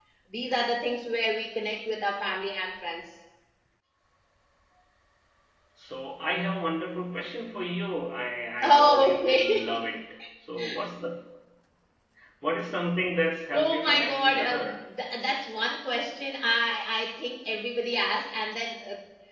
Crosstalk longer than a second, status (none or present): present